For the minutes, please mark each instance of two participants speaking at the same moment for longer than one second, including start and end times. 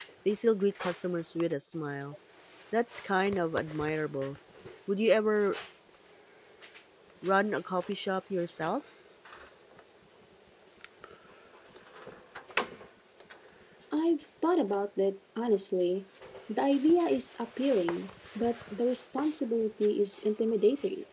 none

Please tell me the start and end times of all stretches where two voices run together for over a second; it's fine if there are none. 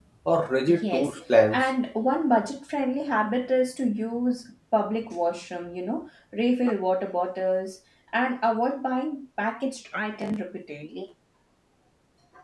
none

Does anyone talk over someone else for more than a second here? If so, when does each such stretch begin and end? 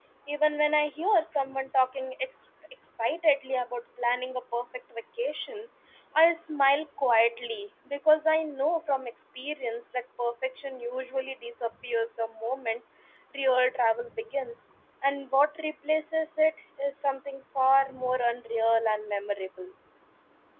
none

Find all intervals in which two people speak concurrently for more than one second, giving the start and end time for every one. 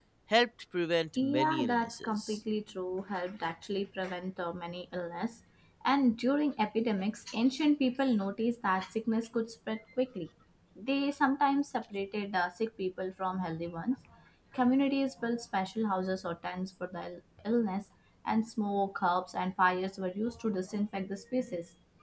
1.2-2.4

